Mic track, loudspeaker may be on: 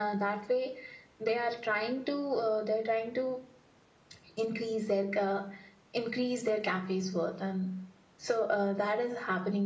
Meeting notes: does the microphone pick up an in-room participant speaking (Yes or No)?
No